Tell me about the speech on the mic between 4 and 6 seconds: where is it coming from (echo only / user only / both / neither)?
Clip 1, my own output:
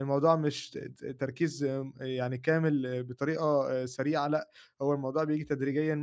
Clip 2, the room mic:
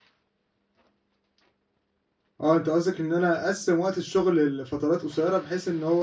user only